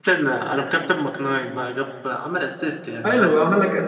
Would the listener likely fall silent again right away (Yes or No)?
No